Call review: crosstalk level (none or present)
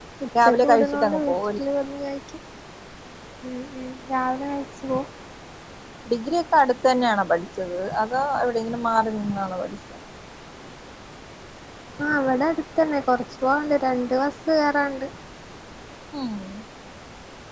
present